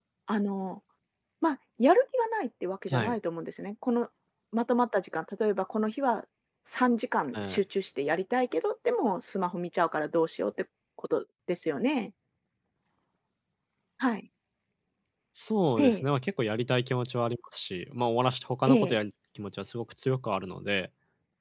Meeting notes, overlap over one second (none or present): none